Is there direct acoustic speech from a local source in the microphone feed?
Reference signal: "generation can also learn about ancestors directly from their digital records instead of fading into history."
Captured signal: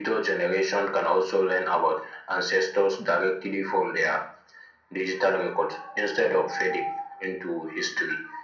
No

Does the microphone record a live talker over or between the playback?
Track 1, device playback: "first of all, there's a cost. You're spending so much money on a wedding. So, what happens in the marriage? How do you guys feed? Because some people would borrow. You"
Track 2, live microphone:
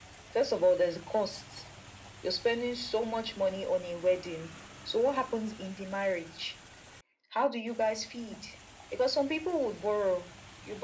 No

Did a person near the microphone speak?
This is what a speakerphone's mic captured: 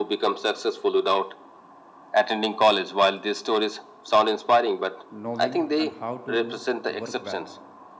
Yes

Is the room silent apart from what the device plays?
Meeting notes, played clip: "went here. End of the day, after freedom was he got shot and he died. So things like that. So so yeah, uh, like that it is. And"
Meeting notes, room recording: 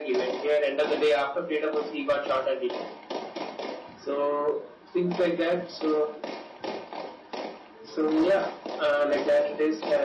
Yes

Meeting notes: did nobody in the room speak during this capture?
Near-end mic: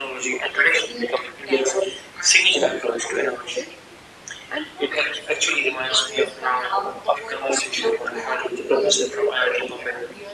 Yes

